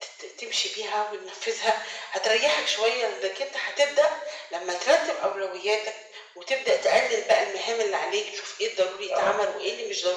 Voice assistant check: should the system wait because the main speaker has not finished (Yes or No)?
Yes